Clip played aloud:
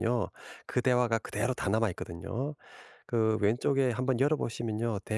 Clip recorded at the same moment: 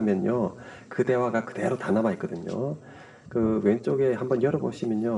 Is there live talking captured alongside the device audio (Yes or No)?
No